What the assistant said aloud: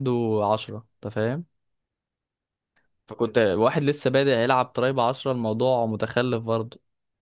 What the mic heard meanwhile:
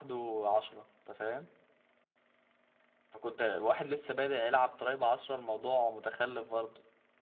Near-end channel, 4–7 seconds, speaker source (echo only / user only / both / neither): echo only